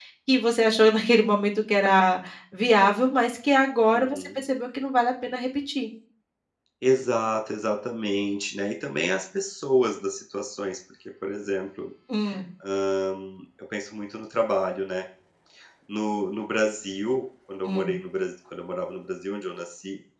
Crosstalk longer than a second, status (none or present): none